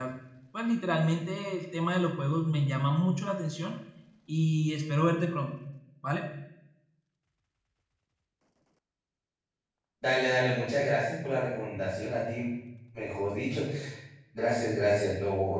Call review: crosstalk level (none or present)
none